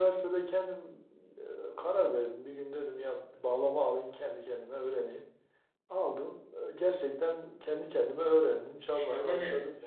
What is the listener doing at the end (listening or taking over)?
taking over